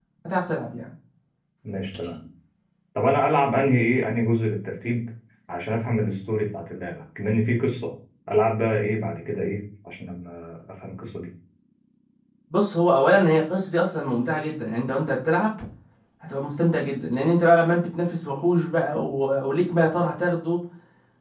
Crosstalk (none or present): none